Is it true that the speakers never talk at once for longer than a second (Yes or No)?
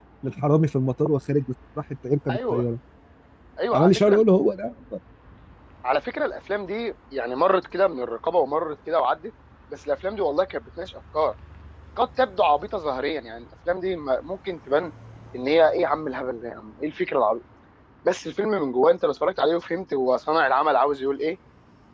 Yes